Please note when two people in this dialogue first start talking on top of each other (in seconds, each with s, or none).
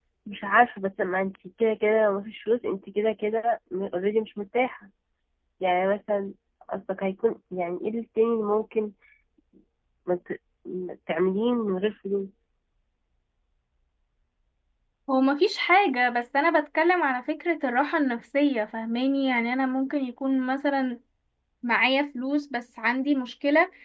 none